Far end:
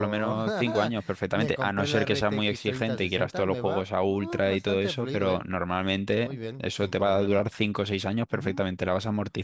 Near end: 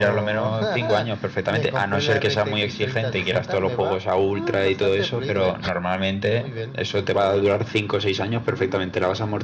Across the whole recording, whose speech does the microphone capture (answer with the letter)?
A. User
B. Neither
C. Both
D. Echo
D